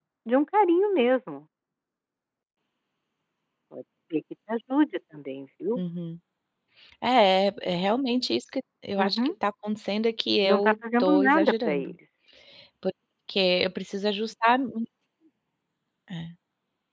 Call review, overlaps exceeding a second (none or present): present